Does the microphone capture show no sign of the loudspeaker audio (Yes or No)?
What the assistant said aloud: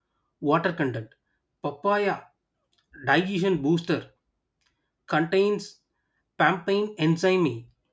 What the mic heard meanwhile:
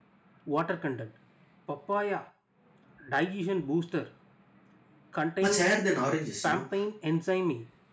No